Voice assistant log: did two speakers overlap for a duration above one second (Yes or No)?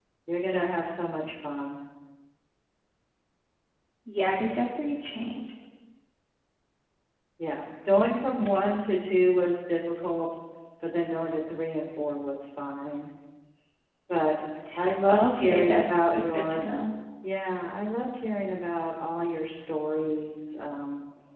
Yes